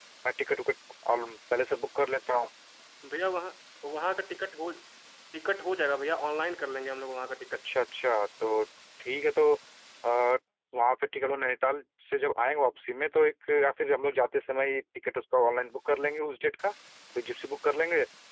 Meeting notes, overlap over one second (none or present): none